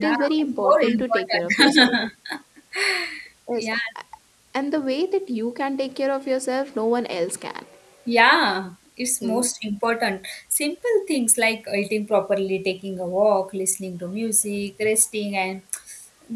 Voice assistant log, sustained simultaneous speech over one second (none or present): present